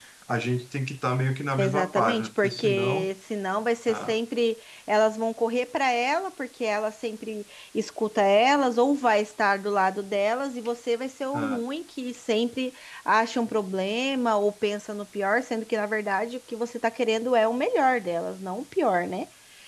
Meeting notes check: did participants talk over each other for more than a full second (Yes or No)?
Yes